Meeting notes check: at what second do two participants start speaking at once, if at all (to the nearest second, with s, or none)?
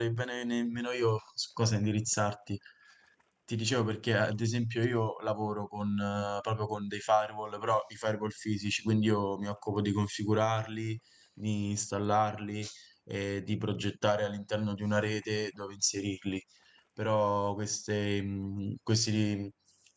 none